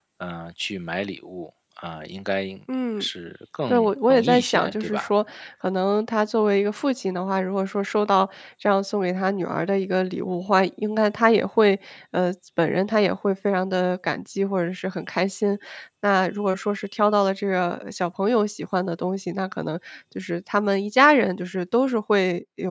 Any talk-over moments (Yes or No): Yes